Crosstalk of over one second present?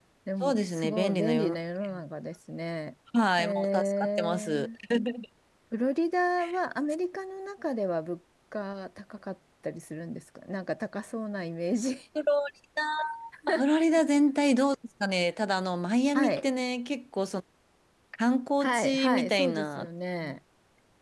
Yes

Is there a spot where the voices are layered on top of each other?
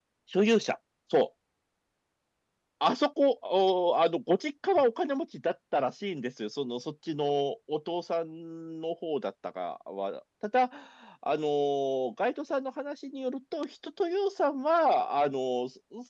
No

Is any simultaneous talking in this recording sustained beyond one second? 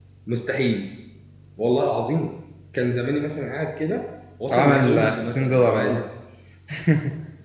Yes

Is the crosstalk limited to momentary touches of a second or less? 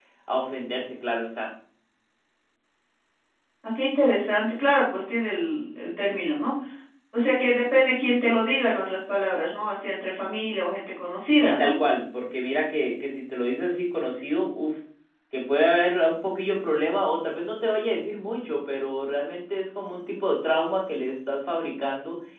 Yes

